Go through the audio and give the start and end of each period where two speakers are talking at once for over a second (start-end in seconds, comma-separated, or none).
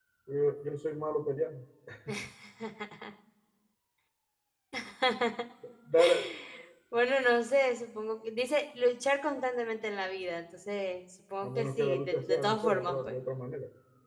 11.4-13.2